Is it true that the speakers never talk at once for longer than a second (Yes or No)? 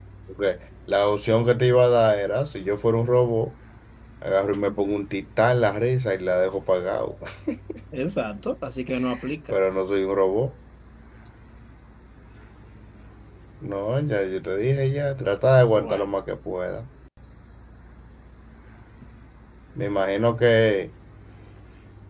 Yes